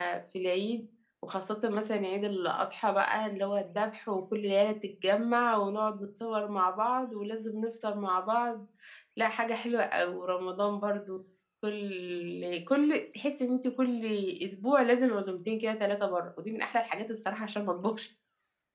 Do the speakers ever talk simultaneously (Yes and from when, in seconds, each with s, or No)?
No